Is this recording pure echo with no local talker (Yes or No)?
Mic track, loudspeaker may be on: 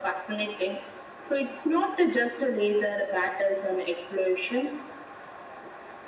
Yes